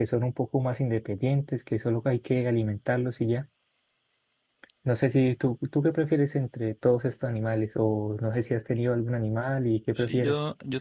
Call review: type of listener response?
taking over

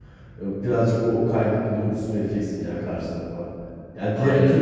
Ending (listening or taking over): listening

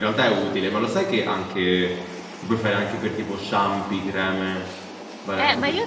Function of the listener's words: taking over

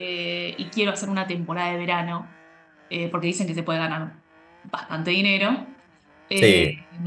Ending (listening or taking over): listening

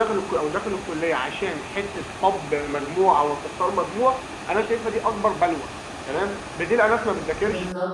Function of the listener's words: listening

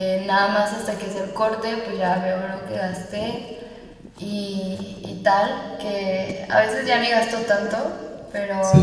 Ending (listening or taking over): listening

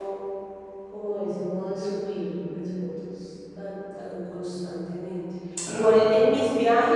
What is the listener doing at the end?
listening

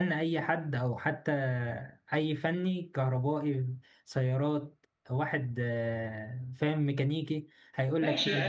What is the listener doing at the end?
taking over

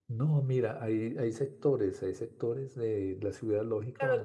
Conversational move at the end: taking over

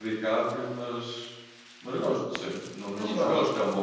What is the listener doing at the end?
listening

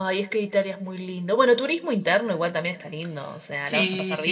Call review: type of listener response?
taking over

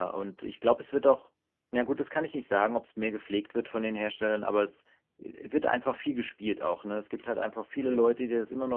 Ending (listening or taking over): listening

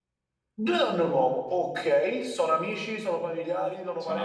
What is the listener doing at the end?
taking over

